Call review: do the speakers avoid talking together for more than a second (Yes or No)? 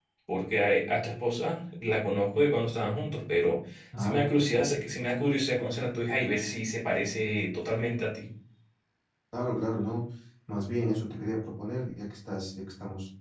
Yes